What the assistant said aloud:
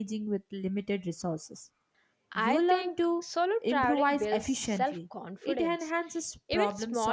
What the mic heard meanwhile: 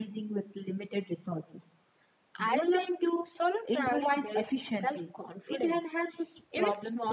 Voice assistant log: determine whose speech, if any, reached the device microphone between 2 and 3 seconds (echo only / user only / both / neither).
echo only